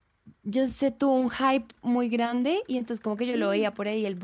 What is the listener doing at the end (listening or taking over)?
listening